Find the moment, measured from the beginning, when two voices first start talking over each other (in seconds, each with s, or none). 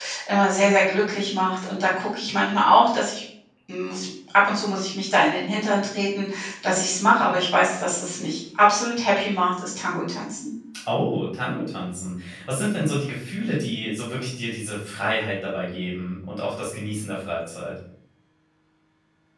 none